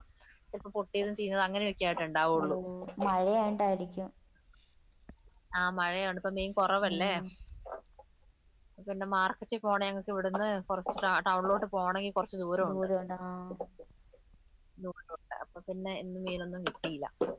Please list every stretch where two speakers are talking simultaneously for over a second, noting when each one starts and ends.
none

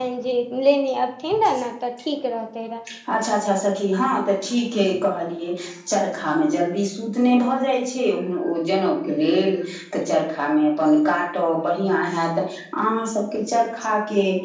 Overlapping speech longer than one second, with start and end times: none

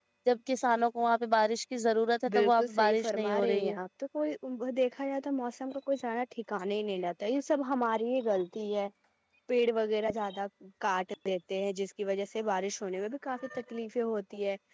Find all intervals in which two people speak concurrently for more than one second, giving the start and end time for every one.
2.3-3.8

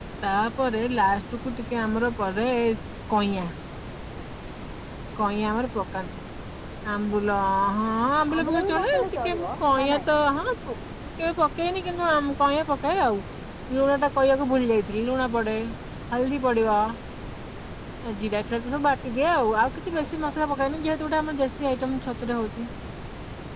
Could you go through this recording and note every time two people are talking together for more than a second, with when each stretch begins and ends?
8.4-10.1

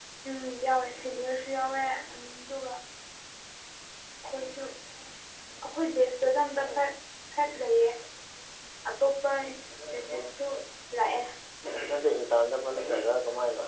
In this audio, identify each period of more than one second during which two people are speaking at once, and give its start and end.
none

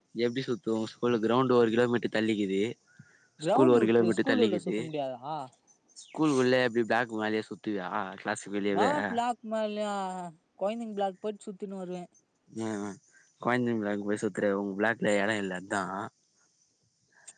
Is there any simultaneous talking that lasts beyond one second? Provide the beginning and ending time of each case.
3.6-4.8

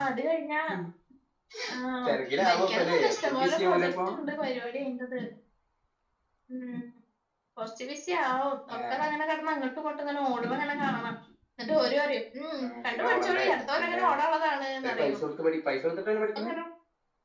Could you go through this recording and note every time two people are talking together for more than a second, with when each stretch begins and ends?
2.0-3.9, 12.6-14.0

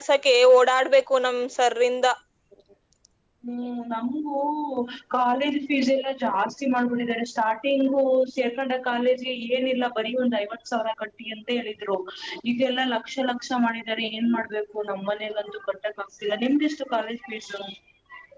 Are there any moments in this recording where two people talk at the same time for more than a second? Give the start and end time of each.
none

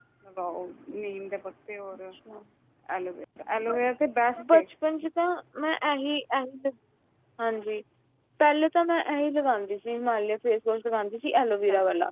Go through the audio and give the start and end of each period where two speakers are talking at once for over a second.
none

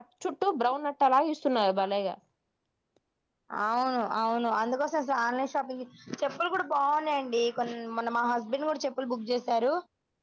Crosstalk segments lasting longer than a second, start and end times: none

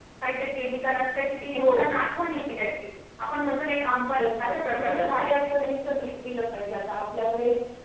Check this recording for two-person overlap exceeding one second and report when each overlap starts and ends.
4.2-5.7

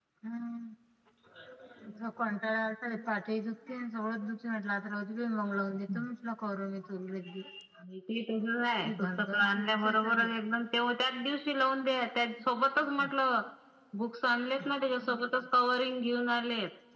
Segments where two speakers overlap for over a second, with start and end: 8.8-10.3

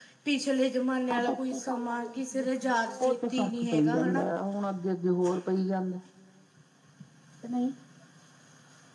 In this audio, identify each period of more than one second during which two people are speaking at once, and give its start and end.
1.1-4.2

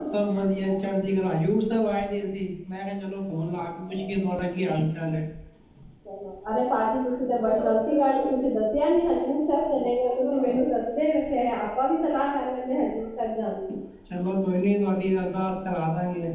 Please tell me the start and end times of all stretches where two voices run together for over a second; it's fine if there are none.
none

